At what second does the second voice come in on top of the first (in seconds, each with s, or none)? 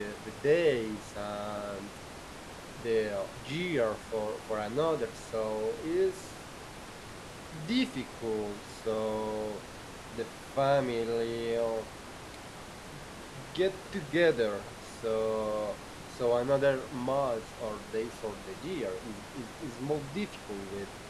none